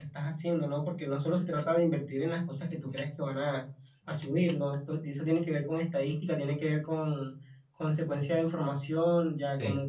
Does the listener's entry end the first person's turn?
No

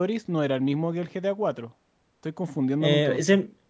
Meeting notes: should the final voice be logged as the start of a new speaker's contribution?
Yes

